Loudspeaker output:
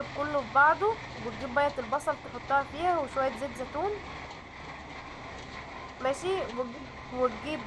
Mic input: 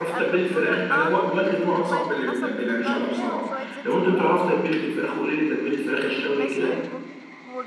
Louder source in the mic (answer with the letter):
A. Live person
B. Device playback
A